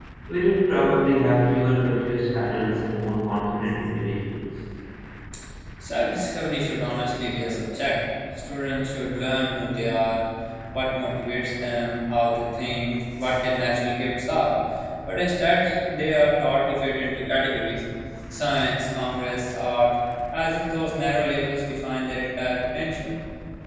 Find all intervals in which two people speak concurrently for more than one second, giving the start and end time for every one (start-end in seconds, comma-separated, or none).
none